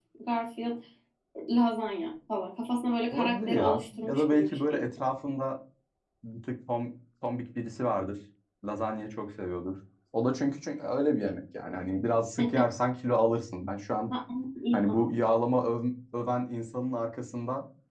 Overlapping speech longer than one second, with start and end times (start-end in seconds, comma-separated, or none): 3.1-4.9